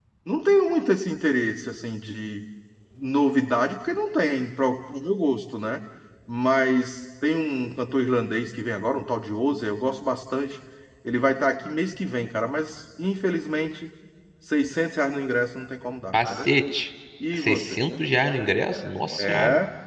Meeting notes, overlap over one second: none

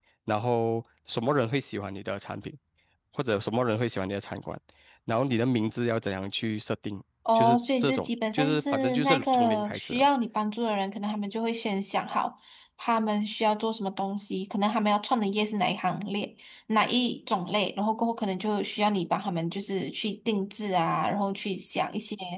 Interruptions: present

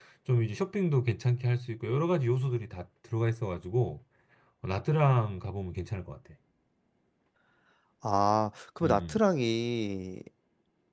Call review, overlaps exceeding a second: none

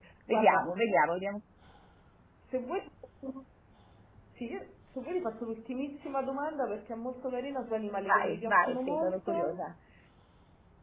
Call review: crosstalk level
present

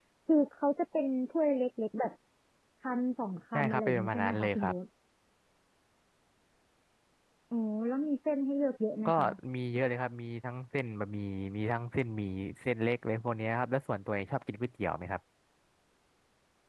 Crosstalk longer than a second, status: present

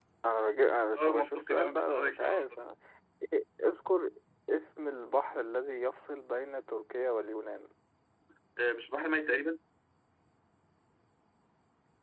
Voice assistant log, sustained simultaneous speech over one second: present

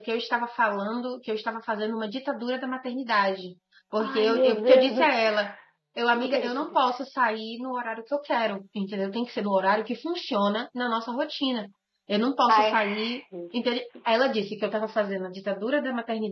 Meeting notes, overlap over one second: present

